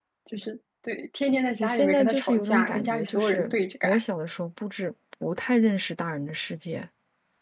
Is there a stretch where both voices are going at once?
Yes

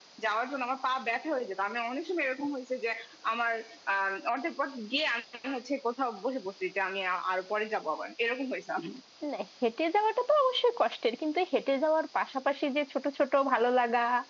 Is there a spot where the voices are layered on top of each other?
No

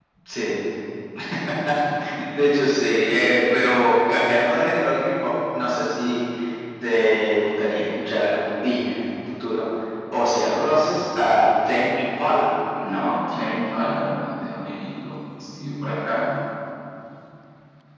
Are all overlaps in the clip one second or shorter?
Yes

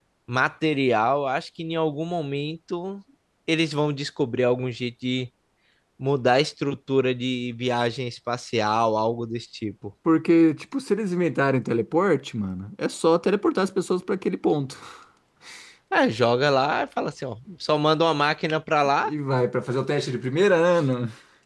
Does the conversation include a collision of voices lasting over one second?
No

